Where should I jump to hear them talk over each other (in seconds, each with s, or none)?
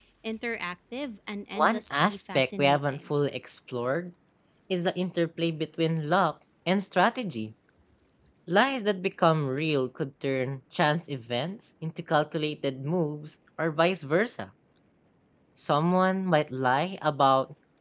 1.6 s